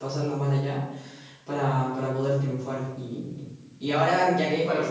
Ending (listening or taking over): listening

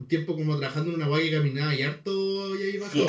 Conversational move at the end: taking over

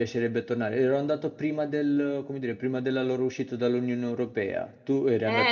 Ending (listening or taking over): taking over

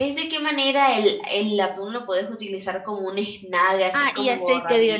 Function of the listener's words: taking over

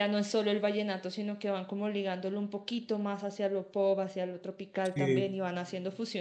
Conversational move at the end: listening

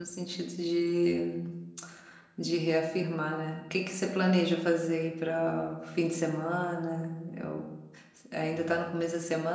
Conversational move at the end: listening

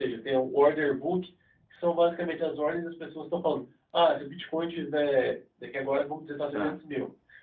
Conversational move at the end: listening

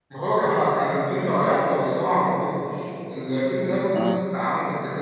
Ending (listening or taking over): listening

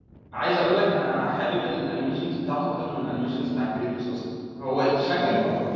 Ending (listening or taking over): listening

